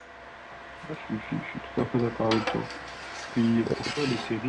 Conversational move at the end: listening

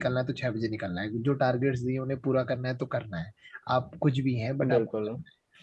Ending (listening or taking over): listening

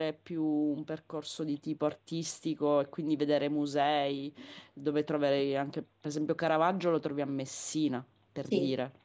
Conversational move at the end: taking over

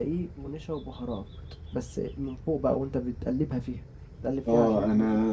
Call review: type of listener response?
taking over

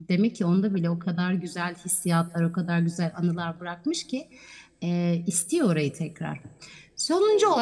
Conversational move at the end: listening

